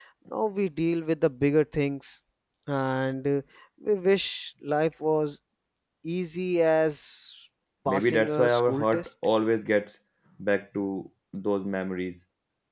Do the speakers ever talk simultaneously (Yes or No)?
Yes